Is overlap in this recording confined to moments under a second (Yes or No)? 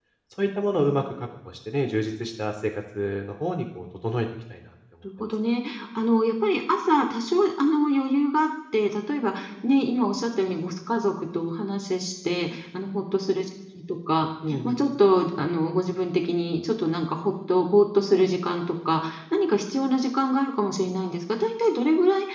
Yes